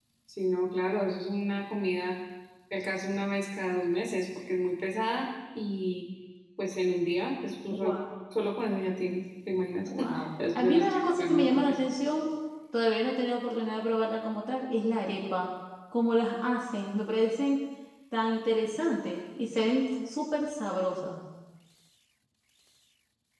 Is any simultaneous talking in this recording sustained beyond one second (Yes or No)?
Yes